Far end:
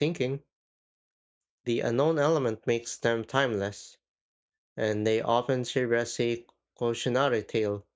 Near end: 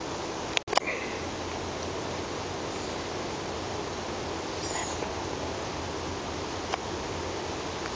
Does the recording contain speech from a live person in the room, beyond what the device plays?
No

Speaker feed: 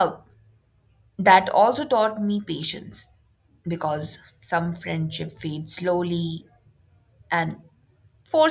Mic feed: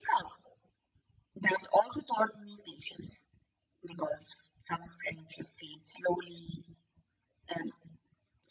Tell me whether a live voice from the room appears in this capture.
No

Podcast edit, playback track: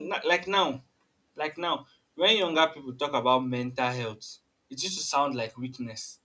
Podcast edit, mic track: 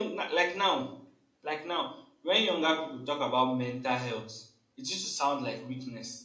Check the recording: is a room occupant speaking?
No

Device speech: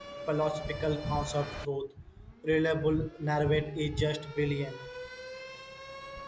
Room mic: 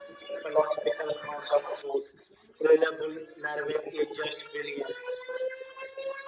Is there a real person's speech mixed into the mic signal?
No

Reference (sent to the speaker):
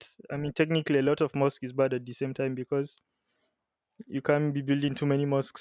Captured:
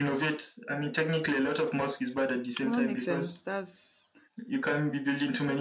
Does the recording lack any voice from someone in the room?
No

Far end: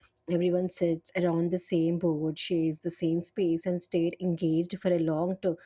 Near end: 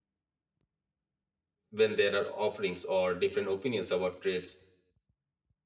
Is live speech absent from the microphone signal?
No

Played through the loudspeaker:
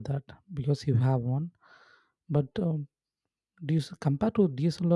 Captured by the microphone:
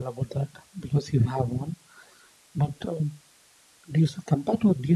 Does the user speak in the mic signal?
No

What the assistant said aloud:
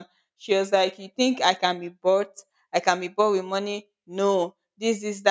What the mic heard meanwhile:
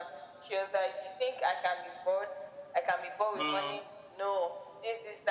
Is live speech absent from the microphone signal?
No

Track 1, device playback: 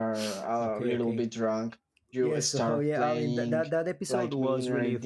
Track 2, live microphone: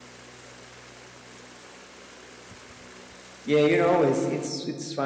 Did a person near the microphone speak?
Yes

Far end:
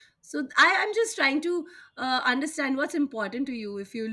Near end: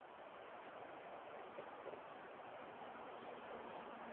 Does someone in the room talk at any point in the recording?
No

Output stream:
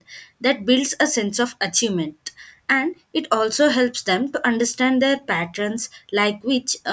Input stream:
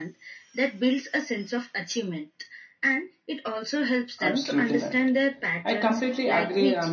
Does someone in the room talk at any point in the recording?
Yes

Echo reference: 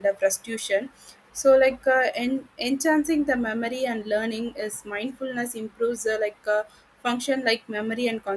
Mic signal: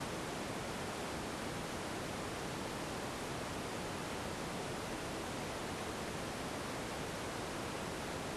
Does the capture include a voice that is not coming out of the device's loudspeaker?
No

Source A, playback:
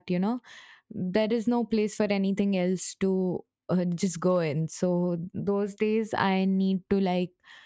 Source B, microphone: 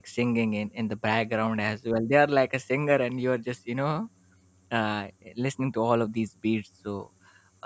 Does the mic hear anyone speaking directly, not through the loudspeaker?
Yes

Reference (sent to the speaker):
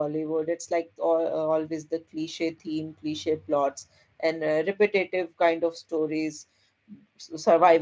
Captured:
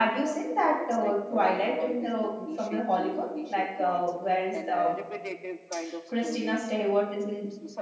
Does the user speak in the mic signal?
Yes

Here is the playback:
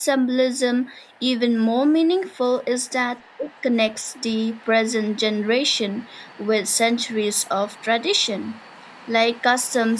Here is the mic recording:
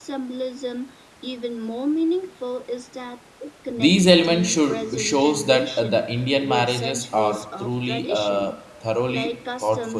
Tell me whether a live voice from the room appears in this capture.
Yes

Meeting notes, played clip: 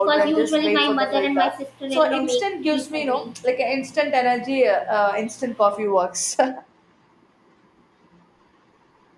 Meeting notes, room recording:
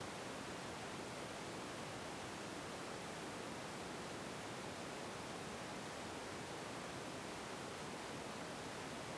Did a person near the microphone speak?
No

